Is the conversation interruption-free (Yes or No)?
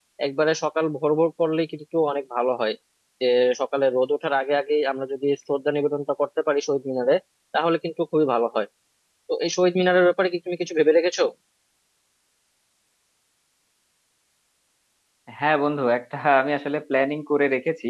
Yes